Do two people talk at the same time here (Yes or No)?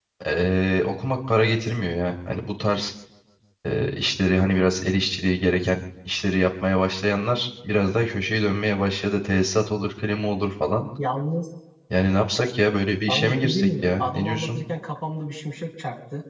Yes